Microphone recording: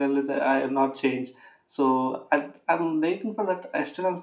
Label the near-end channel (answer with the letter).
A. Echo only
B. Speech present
A